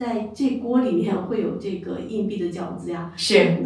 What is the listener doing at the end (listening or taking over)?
listening